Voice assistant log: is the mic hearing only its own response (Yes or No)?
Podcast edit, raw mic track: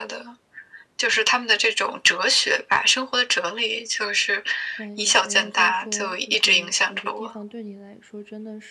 No